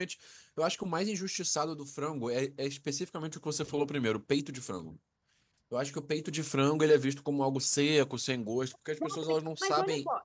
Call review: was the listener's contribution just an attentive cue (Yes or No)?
No